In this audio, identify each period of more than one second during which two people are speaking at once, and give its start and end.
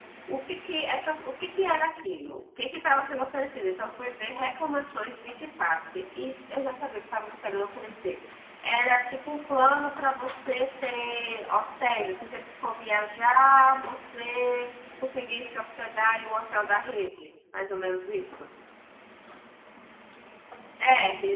none

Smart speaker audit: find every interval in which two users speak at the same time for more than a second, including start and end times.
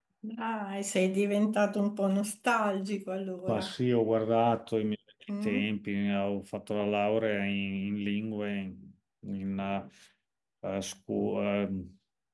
none

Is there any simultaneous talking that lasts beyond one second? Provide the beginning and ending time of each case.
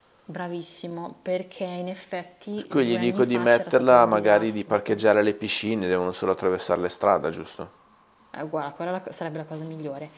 2.7-5.0

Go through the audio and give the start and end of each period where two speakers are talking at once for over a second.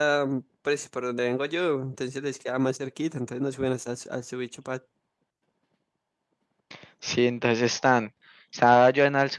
none

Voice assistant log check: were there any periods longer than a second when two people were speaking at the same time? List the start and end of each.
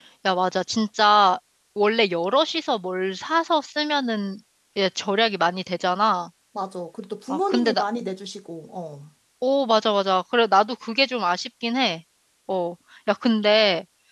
none

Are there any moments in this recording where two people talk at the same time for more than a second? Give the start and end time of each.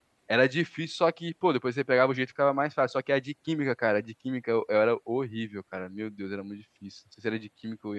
none

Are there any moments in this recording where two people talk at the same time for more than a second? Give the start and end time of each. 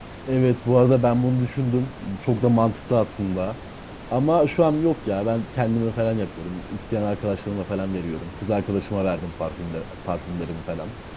none

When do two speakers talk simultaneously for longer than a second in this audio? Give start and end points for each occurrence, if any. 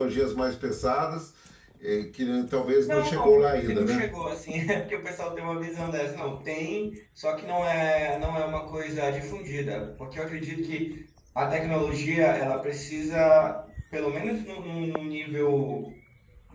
2.9-4.1

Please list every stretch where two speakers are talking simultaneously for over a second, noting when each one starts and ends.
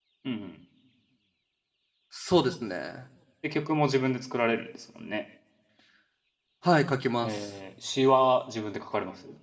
none

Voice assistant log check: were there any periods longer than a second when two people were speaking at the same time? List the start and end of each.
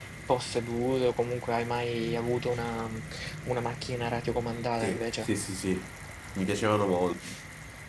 none

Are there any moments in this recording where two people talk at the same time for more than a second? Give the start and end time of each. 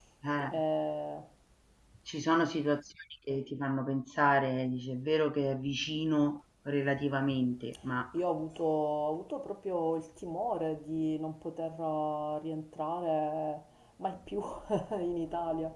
none

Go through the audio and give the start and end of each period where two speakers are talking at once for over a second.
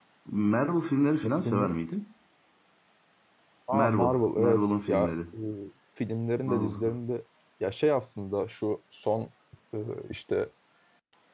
3.7-5.1

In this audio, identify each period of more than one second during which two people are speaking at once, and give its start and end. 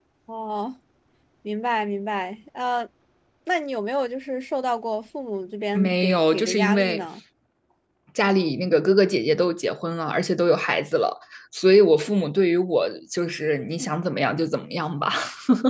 5.7-7.0

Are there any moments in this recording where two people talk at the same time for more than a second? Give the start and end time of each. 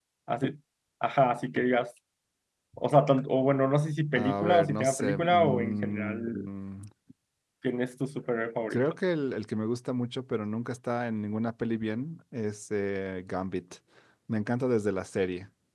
4.2-6.5

